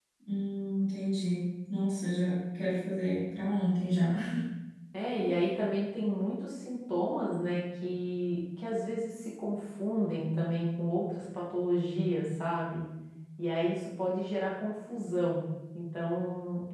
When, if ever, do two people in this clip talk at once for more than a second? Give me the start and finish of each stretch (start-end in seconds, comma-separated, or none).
none